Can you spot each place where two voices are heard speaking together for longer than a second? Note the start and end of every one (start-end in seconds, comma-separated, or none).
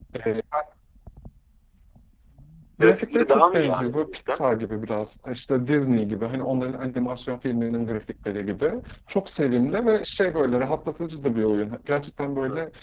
2.8-4.5